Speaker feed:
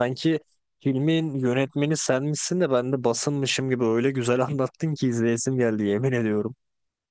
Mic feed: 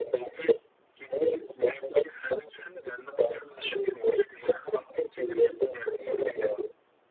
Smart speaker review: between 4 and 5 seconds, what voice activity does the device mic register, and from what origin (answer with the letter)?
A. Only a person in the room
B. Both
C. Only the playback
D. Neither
C